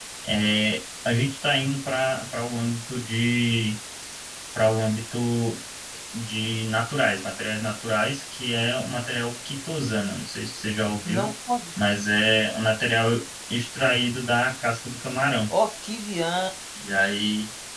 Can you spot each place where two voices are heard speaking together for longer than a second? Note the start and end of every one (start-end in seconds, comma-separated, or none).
none